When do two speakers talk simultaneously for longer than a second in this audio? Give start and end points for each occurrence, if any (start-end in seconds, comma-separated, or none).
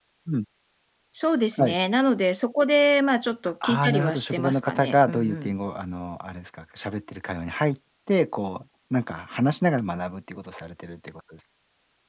3.6-5.5